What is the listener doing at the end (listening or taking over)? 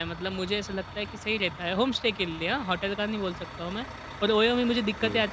listening